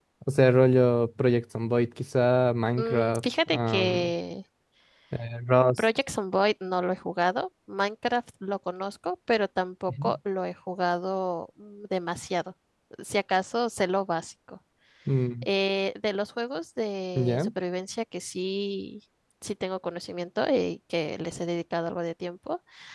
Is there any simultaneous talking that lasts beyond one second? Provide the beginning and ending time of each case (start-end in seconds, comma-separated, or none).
2.8-4.1